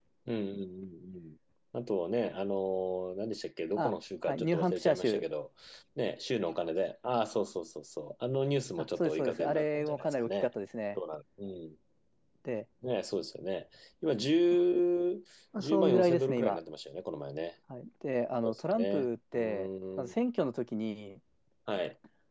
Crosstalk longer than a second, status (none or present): present